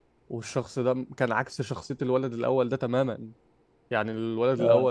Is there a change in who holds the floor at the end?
No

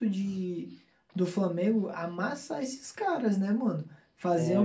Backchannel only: Yes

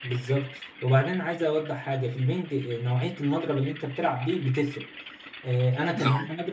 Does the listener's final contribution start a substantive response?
No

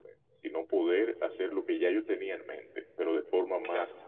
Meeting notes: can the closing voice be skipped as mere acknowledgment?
Yes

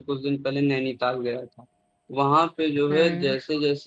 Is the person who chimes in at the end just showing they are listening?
Yes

